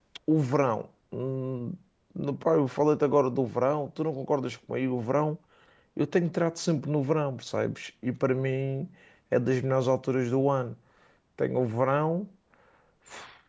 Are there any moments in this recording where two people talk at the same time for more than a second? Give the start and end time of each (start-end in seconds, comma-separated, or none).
none